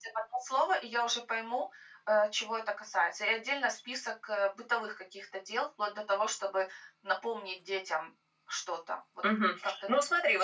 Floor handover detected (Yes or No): Yes